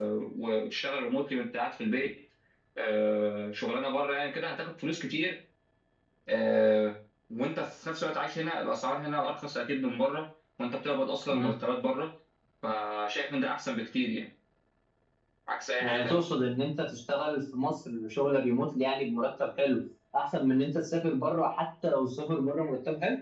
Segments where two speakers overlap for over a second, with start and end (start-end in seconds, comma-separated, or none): none